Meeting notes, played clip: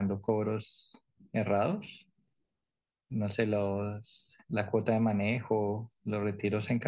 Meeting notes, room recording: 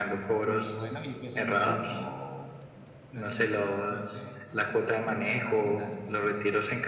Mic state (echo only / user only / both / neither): both